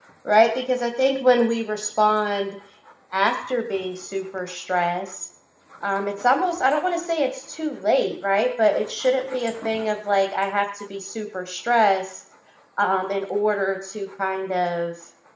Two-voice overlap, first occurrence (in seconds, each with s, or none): none